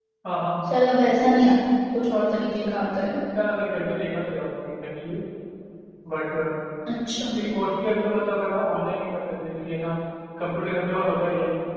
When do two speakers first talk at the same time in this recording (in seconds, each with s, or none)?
none